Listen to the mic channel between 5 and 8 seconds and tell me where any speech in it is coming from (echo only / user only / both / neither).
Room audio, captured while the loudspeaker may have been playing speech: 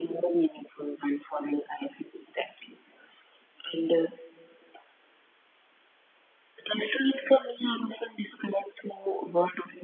echo only